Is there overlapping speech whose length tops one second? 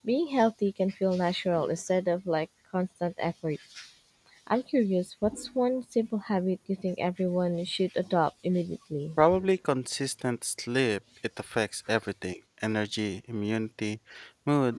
No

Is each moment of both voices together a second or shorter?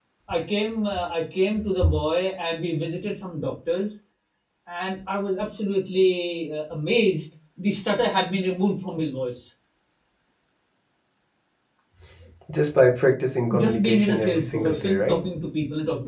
No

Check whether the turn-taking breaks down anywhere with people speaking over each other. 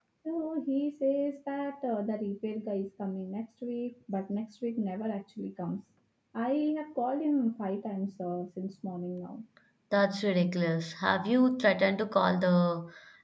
No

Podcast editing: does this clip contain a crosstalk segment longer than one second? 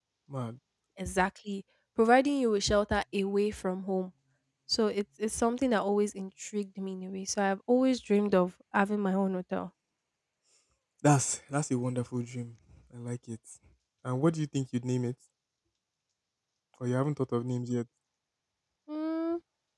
No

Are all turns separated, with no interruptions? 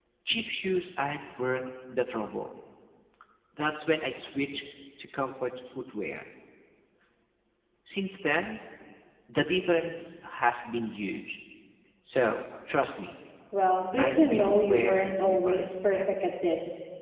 No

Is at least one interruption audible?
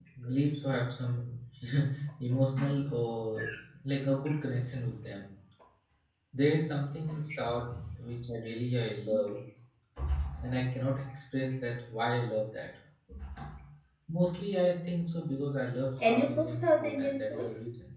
Yes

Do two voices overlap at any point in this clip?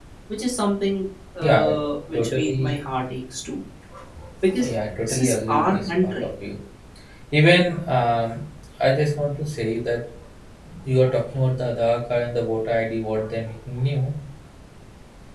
Yes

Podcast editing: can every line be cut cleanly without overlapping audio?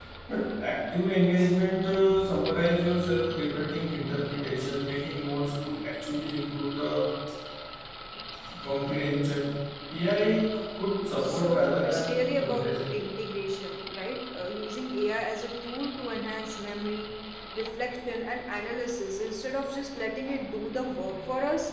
No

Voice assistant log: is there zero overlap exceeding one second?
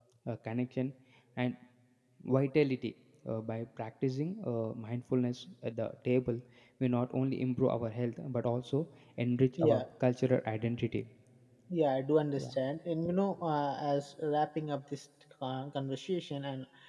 Yes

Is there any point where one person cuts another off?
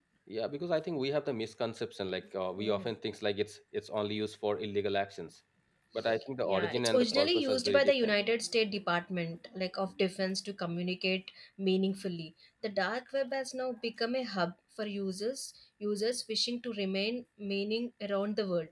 Yes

